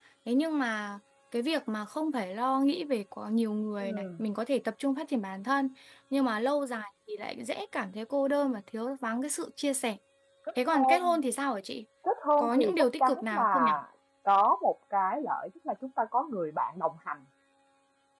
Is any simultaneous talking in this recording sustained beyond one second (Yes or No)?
Yes